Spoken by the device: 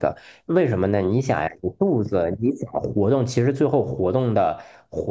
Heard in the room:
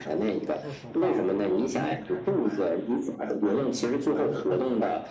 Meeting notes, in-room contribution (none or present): present